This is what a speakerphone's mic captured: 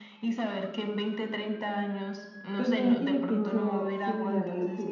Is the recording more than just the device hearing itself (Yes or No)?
Yes